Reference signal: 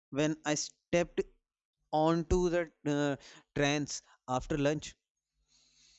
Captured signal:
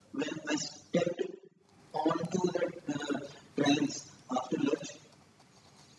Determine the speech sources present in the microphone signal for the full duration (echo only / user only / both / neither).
echo only